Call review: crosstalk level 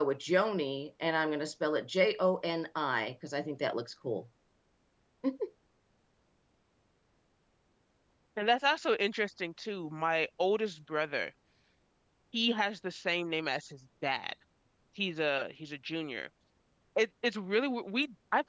none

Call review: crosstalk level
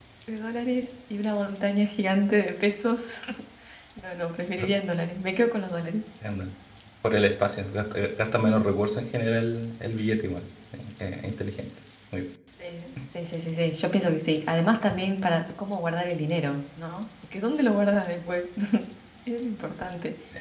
none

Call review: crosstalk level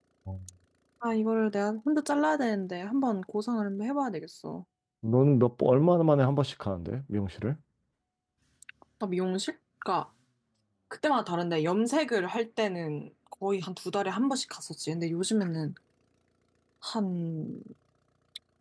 none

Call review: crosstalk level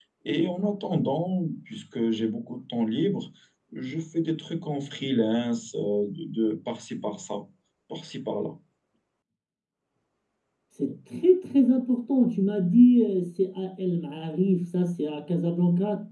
none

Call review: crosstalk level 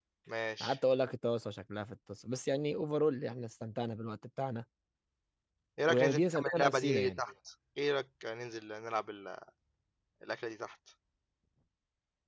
present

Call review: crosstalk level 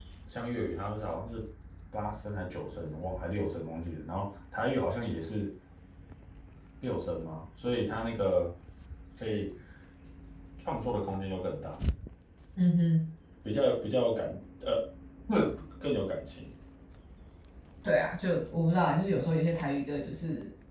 none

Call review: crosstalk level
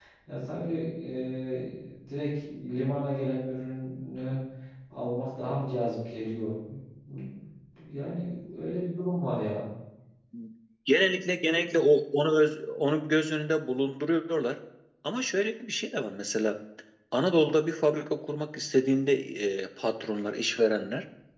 none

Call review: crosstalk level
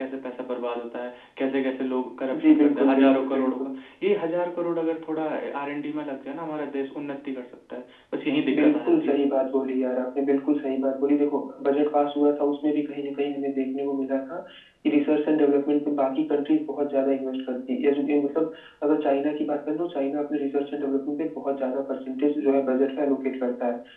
present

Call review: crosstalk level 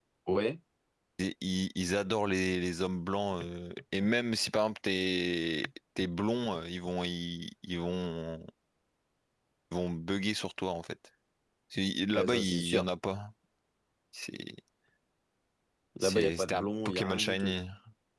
present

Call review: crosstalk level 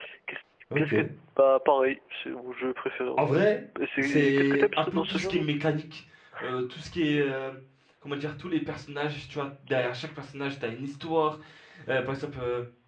present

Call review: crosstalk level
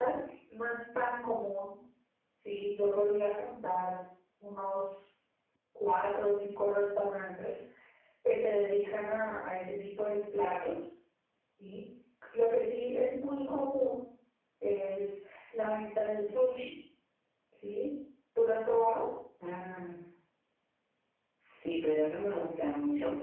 none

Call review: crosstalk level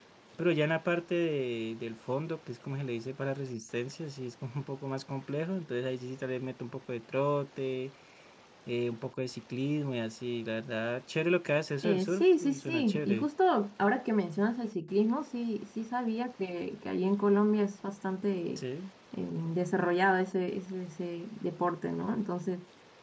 present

